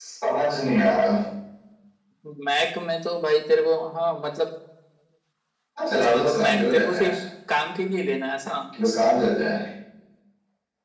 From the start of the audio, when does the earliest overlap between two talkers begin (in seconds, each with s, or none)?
5.9 s